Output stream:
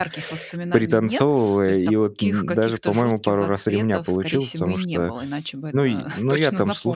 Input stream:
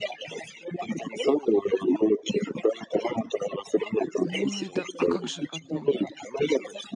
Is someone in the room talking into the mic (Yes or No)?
Yes